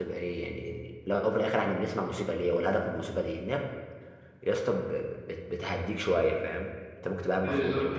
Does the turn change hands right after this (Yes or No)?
Yes